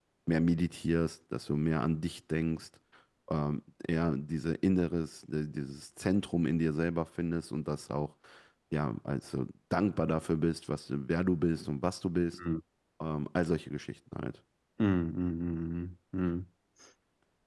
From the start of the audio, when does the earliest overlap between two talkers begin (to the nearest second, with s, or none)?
none